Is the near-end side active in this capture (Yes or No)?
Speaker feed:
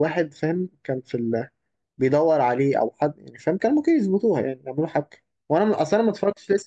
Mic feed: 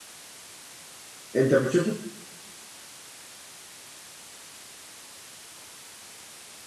Yes